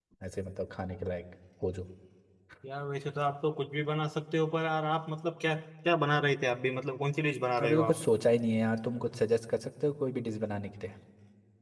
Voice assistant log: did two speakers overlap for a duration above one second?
No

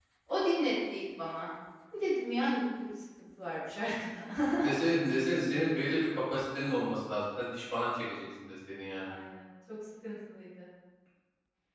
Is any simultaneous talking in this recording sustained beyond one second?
No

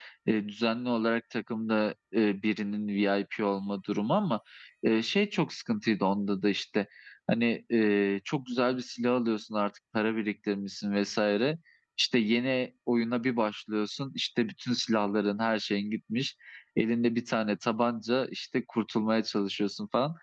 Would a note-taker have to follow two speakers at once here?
No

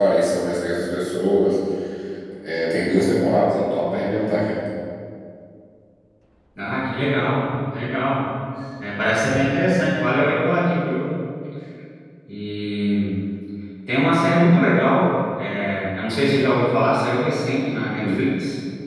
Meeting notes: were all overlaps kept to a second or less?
Yes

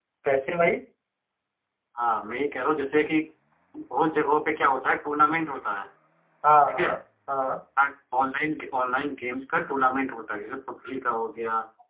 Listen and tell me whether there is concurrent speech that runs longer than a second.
No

